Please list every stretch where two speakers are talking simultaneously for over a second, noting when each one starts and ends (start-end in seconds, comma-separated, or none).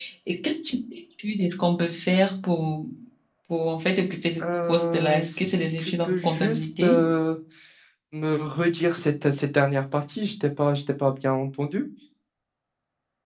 4.4-7.0